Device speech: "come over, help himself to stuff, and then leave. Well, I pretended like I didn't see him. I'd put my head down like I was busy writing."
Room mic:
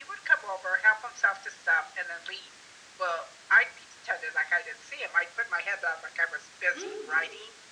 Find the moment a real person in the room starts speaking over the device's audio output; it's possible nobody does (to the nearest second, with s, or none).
7 s